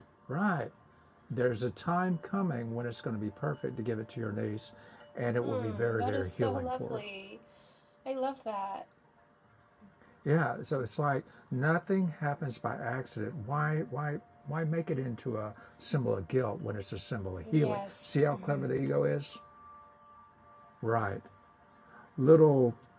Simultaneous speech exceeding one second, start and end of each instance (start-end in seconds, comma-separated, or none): 5.4-7.0, 17.4-18.7